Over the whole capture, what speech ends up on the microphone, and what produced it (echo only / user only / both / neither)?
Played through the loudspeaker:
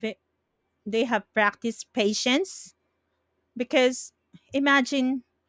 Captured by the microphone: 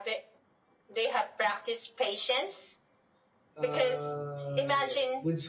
both